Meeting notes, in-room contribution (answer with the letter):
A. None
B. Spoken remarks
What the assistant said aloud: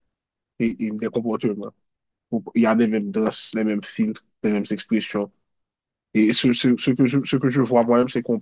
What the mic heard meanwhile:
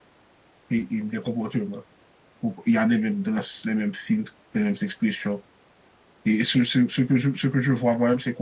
A